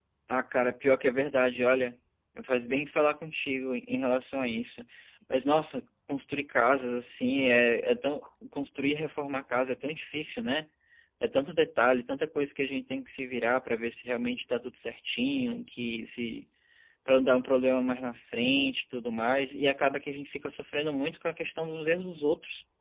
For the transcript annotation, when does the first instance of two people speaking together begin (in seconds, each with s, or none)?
none